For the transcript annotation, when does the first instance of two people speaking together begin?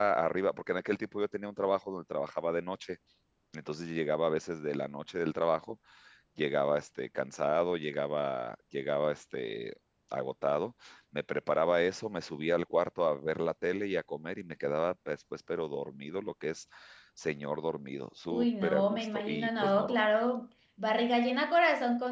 18.3 s

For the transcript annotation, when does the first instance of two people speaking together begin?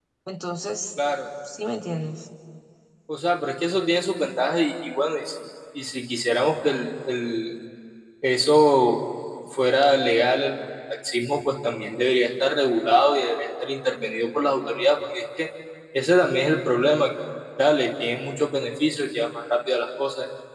none

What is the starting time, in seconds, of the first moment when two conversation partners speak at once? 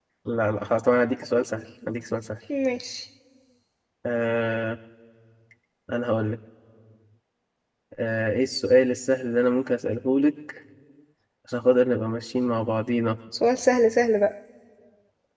none

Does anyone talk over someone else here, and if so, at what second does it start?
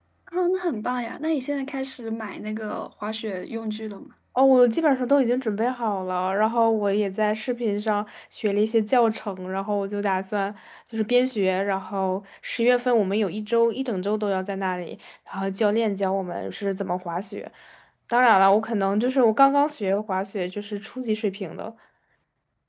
none

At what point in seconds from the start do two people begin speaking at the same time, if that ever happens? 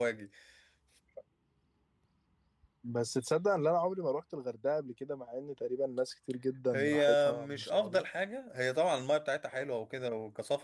6.7 s

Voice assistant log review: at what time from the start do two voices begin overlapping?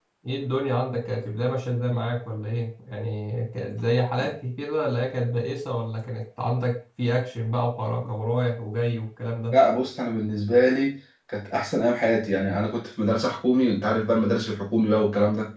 none

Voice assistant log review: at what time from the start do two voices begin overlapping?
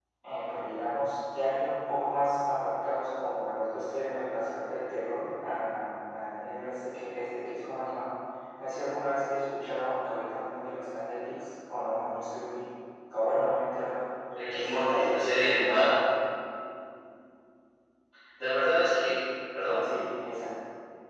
14.5 s

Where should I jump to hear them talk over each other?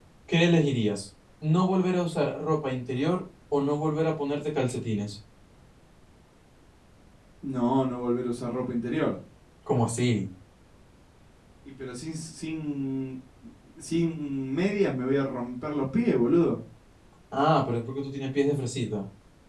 none

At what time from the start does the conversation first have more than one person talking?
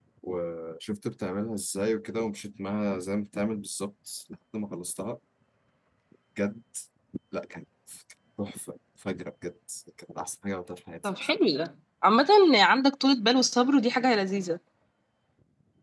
none

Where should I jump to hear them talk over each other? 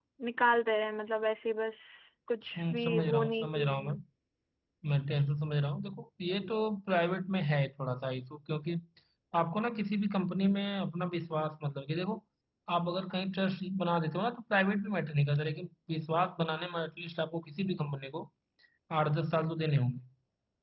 2.6 s

